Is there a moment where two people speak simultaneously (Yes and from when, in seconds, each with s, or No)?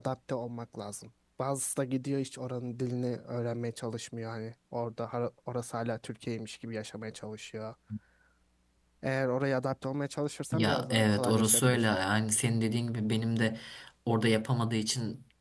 Yes, from 10.5 s